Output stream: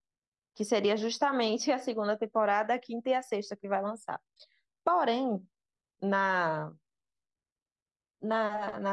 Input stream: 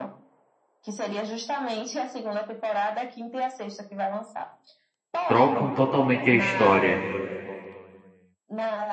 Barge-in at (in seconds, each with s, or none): 5.3 s